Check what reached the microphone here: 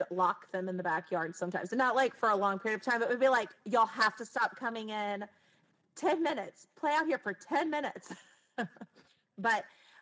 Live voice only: none

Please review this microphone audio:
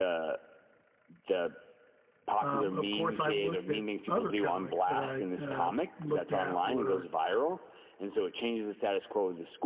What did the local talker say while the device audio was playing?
Um, of course, I looked at other comics that I uh, looked at were

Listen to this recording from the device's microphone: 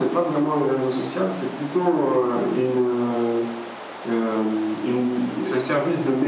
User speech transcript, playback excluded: none

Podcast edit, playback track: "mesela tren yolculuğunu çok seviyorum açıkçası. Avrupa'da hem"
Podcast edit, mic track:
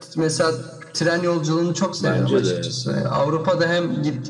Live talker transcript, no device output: bence de

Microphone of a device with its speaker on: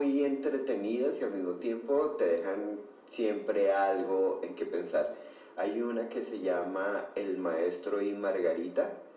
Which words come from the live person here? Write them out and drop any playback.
none

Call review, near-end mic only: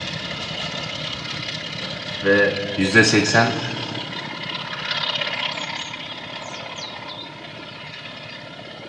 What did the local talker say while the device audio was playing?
Ve %80

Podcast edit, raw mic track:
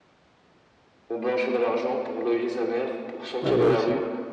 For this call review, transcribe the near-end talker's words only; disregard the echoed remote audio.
ah, moi aussi.

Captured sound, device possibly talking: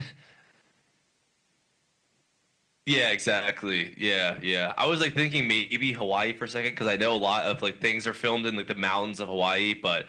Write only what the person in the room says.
none

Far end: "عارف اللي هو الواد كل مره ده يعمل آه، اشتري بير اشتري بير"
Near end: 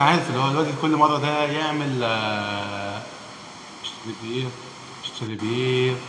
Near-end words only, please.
none

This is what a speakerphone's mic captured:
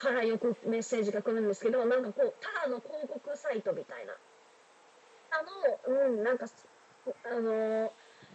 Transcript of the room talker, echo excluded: none

